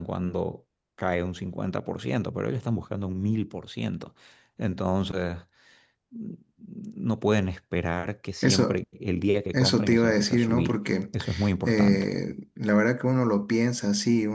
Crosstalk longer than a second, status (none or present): present